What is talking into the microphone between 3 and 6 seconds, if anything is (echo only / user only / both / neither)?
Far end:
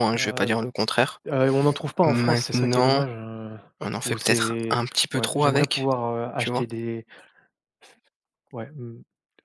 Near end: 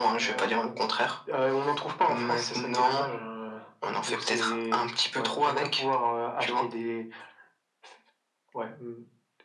echo only